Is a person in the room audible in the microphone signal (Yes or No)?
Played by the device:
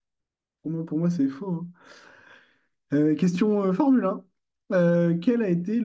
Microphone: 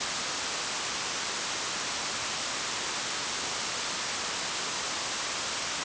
No